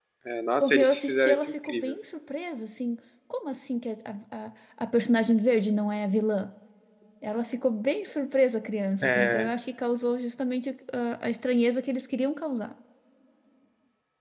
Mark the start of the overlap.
0.6 s

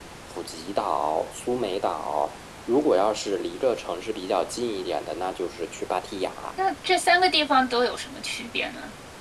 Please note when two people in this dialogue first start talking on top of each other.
none

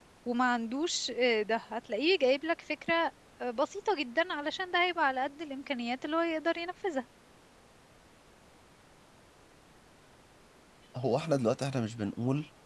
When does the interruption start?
none

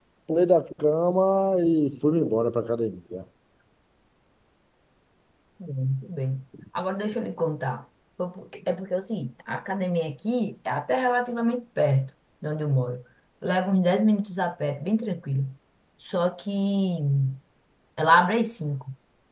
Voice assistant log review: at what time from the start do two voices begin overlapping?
none

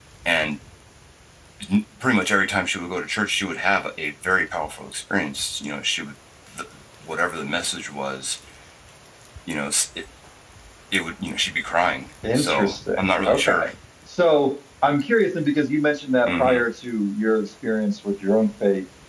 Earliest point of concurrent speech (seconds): 12.3 s

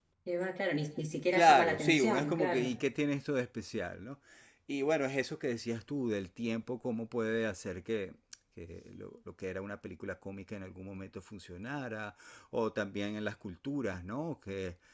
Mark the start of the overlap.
1.3 s

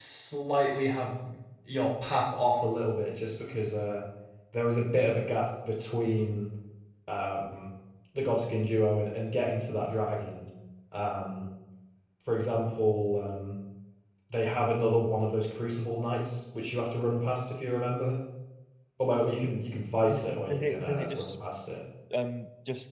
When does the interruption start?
20.1 s

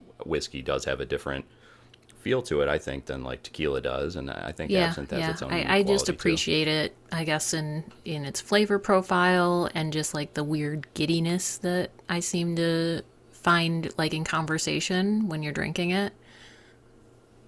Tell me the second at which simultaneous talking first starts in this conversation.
4.6 s

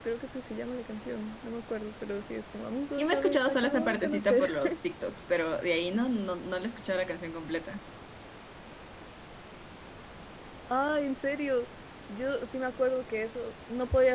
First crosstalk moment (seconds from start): 3.0 s

